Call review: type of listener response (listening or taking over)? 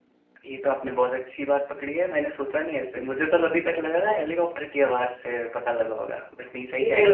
taking over